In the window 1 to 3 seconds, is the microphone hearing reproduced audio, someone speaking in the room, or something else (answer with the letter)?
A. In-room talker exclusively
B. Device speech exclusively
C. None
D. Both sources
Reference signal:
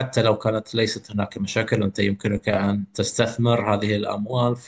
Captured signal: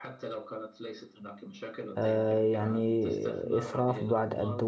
D